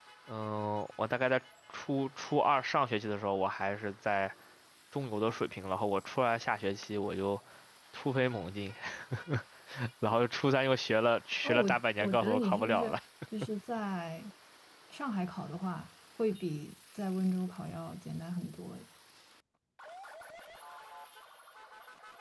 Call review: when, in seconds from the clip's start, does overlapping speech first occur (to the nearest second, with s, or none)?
11 s